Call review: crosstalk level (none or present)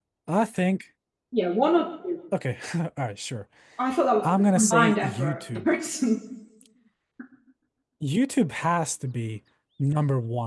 present